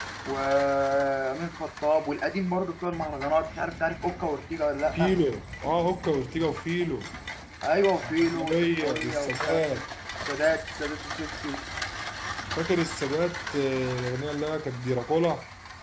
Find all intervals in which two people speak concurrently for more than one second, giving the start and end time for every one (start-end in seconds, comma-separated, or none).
8.0-9.8